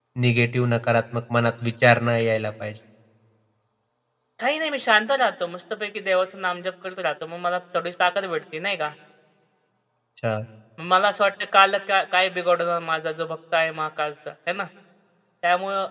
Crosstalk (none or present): none